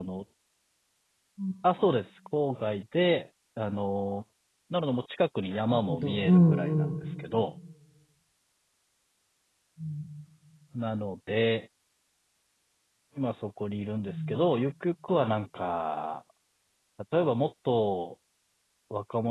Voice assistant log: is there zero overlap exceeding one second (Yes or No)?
No